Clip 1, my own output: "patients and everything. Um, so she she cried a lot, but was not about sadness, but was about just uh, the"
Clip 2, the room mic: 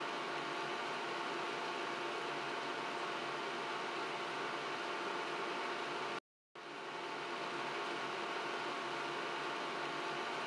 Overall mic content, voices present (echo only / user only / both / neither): neither